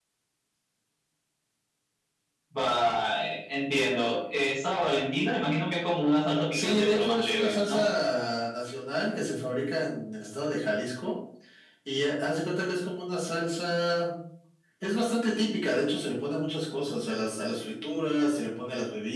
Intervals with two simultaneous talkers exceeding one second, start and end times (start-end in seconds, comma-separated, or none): 6.5-7.8